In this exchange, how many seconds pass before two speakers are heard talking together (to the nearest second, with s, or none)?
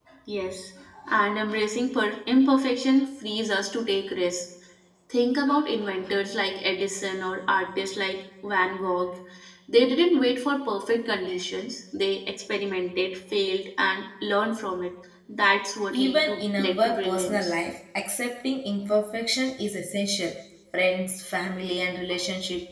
16 s